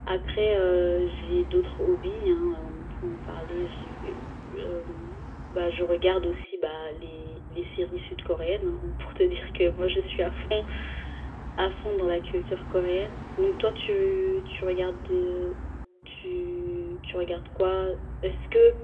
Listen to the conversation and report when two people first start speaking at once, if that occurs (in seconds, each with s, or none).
none